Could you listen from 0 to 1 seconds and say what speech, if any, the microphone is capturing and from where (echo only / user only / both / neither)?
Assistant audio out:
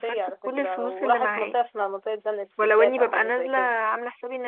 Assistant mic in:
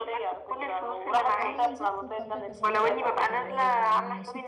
echo only